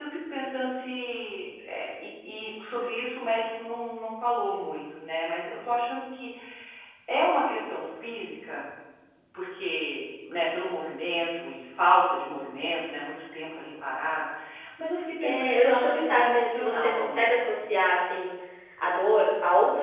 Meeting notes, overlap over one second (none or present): present